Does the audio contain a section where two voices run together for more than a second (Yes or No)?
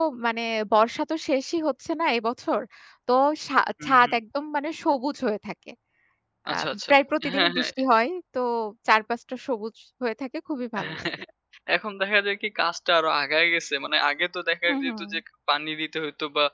No